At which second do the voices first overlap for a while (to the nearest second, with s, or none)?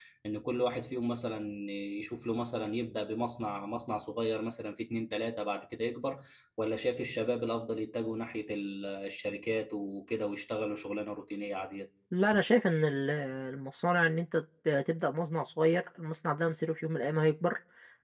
none